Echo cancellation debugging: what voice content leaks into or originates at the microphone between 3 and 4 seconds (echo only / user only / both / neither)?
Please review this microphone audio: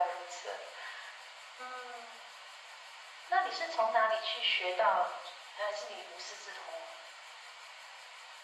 echo only